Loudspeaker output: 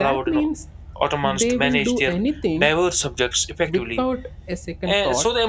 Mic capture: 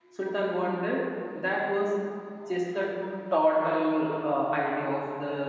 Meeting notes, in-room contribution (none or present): present